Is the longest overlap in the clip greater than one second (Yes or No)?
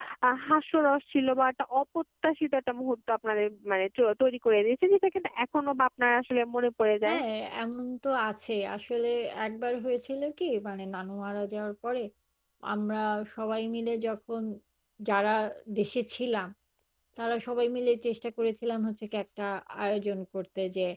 No